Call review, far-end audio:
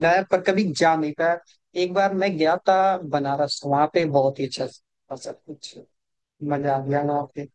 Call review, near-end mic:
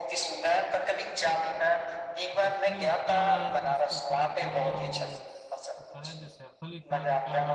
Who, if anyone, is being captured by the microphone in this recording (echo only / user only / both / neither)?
both